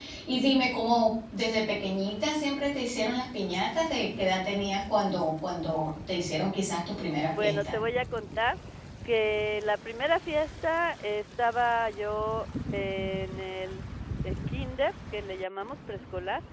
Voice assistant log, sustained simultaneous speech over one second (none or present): none